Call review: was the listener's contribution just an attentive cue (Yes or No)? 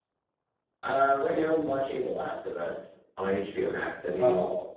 No